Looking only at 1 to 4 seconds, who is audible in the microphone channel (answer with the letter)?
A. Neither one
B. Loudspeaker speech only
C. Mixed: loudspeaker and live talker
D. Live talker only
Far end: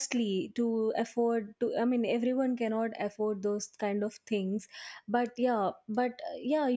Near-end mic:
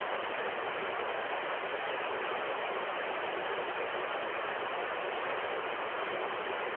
A